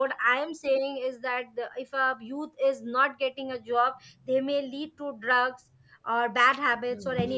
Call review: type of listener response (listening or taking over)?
taking over